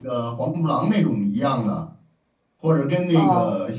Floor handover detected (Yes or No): No